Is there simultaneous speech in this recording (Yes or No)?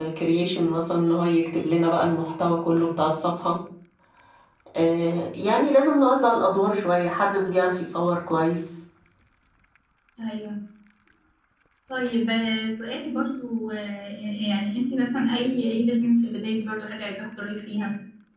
No